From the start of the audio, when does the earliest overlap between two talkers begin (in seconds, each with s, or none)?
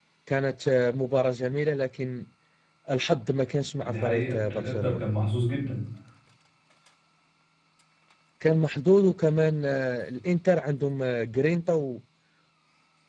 3.8 s